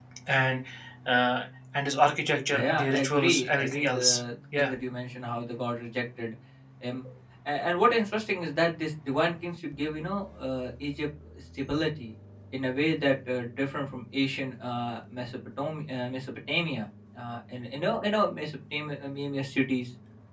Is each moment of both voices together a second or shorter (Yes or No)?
No